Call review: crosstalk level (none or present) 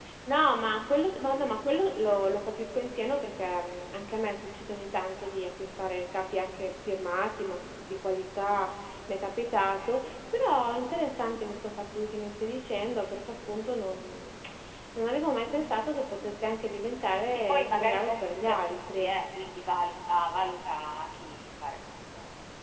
present